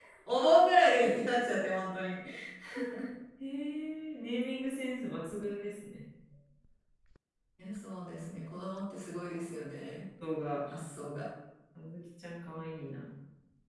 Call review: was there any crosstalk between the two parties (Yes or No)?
No